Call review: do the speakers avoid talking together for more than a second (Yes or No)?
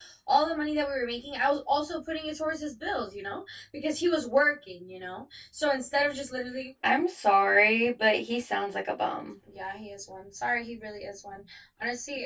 Yes